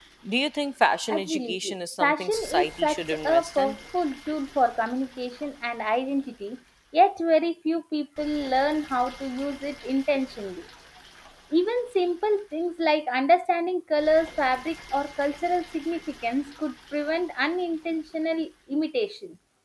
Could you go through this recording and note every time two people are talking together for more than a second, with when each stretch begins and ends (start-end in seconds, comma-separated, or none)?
1.1-3.7